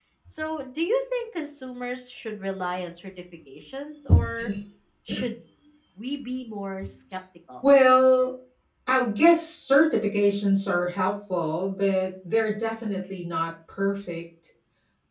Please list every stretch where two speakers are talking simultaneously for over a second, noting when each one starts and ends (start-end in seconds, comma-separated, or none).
none